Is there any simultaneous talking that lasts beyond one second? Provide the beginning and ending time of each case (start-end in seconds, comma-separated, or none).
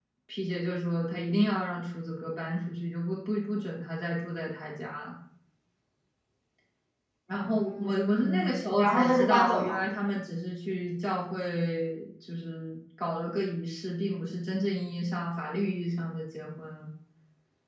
7.4-9.8